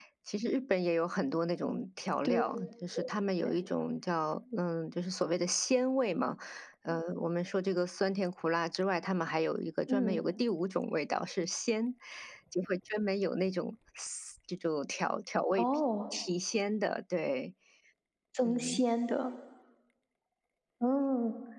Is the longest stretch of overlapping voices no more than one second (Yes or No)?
Yes